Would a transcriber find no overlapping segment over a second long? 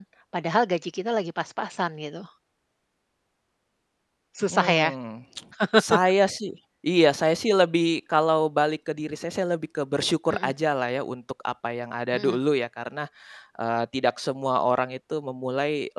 Yes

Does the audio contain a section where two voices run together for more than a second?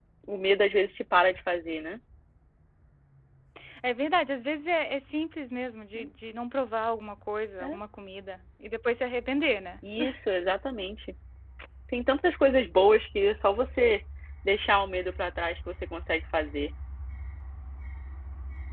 No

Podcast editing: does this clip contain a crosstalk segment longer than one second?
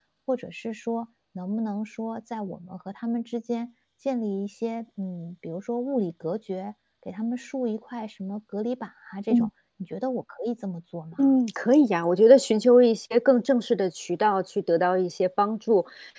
No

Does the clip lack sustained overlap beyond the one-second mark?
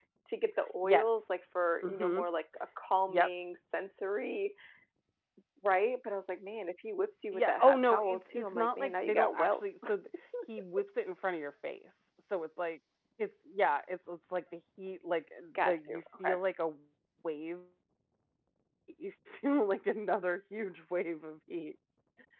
No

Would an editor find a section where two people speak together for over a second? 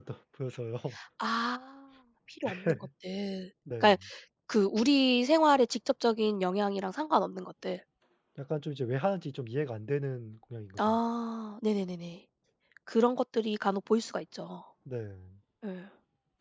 No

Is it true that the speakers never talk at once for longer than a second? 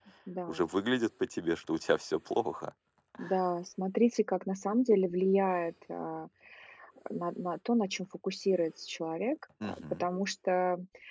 Yes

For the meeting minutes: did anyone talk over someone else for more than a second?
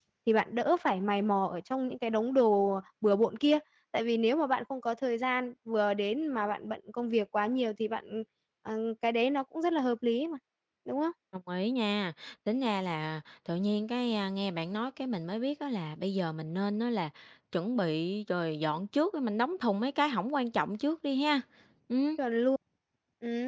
No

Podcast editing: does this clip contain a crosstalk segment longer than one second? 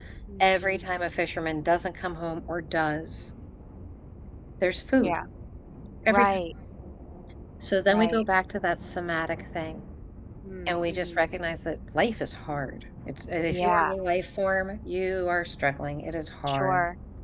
No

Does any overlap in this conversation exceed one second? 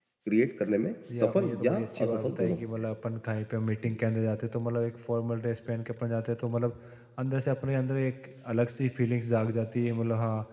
Yes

